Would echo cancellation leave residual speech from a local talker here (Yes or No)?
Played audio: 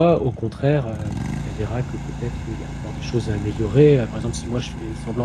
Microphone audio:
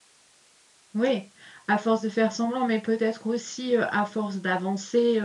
Yes